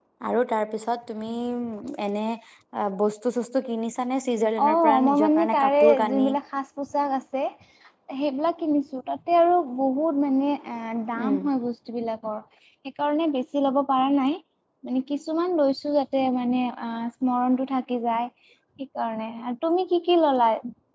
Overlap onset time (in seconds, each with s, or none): 4.6 s